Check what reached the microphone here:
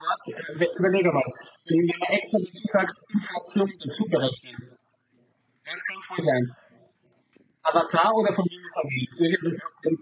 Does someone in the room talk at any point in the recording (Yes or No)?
No